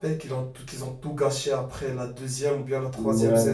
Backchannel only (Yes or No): No